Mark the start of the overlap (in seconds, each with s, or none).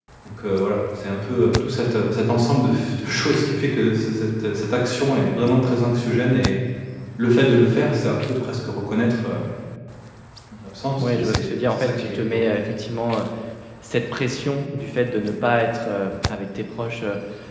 11.0 s